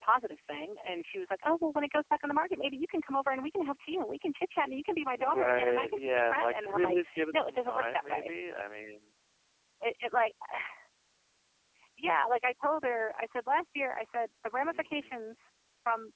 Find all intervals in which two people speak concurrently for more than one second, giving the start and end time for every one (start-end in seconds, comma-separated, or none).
5.2-8.3